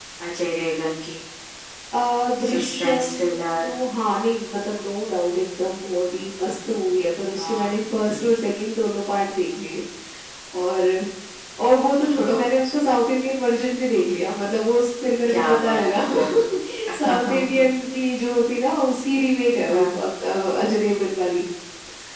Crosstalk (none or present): present